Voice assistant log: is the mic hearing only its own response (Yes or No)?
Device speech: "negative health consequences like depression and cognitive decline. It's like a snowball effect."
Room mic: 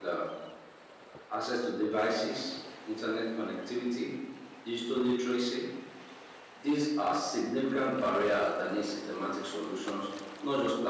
No